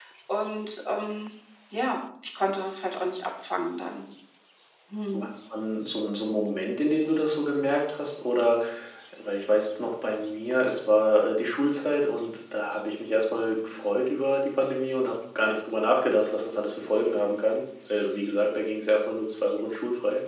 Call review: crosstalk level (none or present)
none